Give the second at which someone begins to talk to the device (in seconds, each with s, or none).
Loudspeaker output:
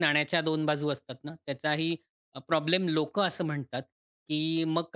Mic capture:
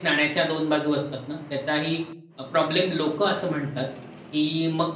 none